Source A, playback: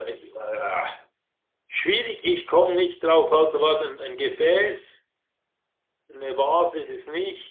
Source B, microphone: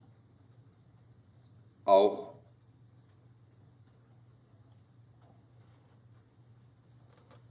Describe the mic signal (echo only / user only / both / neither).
user only